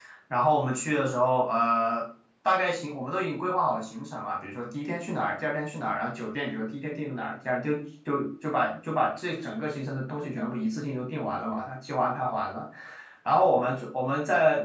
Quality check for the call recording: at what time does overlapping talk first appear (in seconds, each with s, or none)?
none